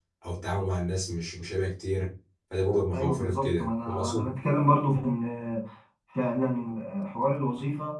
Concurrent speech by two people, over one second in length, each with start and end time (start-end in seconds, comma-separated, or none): 2.9-4.3